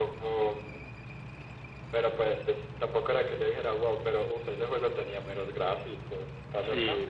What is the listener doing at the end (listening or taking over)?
taking over